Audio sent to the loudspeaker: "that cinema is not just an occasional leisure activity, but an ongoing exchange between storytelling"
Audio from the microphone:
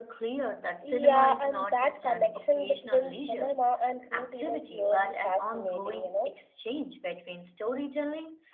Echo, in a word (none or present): present